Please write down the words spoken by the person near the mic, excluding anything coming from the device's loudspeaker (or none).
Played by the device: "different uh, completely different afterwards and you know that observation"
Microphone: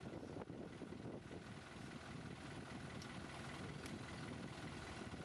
none